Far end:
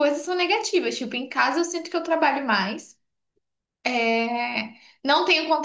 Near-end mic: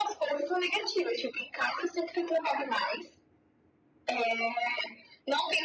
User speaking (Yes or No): No